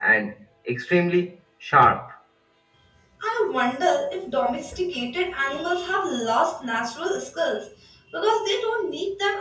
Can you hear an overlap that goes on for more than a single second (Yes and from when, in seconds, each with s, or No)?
No